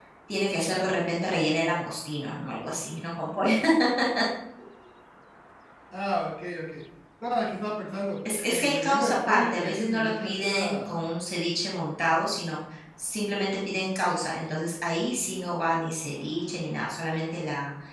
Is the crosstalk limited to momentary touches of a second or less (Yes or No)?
No